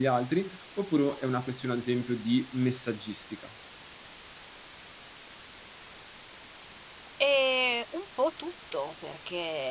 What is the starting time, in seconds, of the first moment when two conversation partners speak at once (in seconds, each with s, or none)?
none